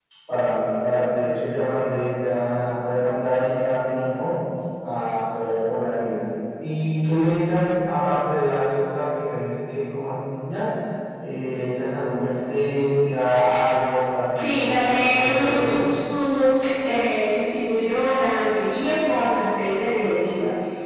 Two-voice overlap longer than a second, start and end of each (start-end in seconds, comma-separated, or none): 14.3-15.8